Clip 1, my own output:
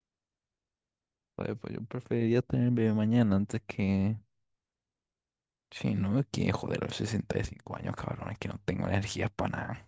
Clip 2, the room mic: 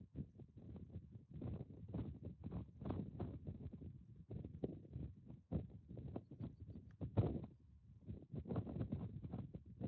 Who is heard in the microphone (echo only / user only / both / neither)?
neither